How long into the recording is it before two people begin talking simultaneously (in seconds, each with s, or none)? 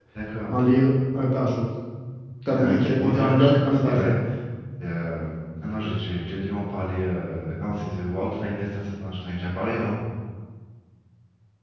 2.5 s